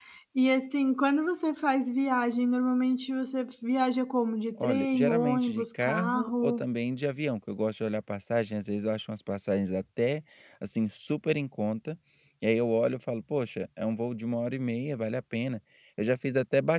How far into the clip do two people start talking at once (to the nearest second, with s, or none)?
5 s